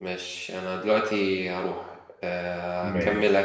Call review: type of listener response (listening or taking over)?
listening